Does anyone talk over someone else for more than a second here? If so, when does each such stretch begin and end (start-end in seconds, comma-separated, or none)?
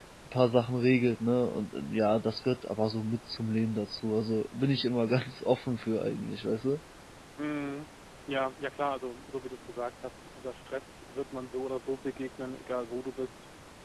none